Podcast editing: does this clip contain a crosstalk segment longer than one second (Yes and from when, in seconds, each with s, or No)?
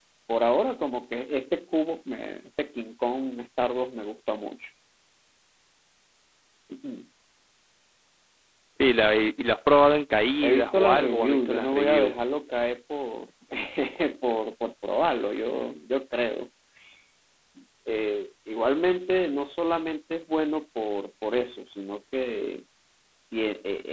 Yes, from 10.4 s